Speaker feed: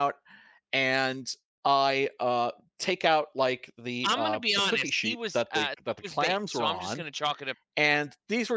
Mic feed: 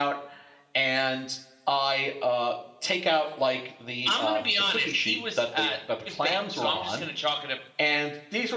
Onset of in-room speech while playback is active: none

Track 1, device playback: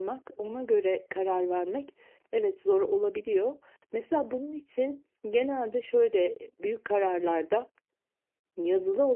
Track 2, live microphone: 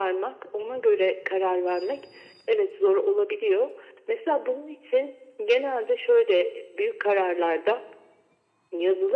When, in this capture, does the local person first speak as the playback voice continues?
none

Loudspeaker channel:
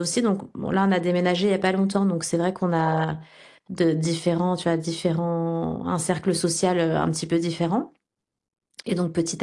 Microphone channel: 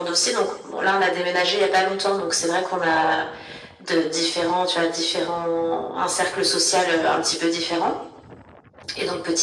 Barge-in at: none

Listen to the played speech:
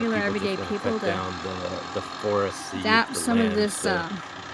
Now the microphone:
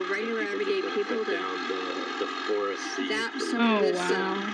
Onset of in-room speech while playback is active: 4 s

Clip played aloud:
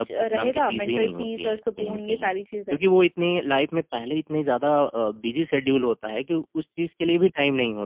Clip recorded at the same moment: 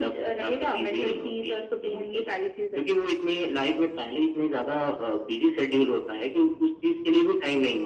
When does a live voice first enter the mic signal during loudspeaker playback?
none

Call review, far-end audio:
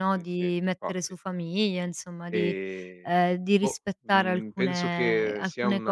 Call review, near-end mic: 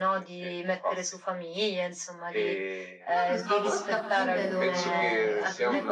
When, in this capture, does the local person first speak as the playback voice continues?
3 s

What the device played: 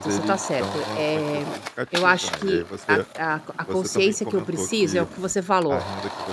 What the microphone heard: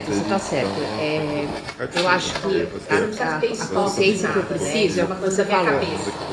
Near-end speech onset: 2 s

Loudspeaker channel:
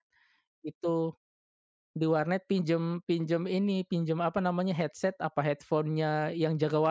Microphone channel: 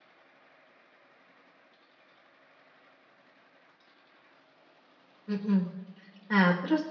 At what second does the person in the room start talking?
5 s

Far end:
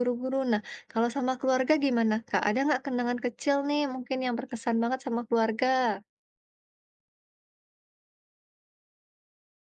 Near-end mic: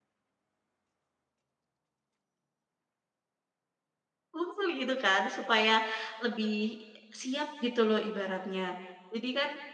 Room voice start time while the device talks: 4 s

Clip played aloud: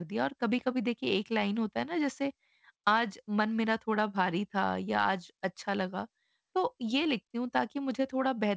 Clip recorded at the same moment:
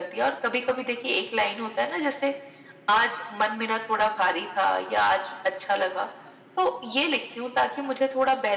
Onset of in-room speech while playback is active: none

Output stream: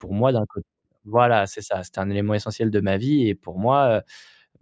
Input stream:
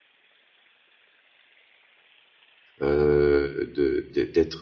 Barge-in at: 3 s

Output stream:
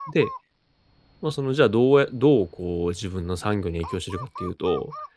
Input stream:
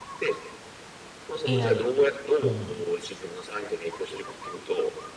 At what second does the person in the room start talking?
1 s

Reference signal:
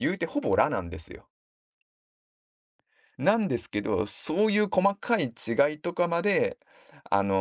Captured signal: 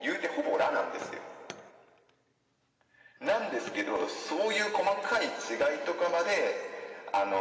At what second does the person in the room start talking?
none

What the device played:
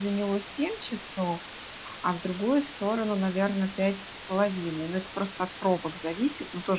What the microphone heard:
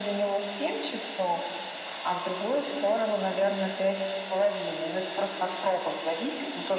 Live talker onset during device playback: none

